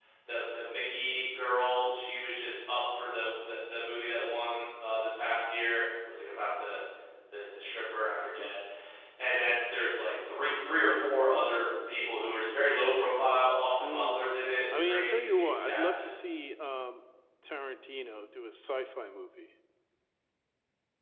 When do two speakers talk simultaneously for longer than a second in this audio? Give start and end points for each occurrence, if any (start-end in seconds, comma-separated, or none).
14.7-16.1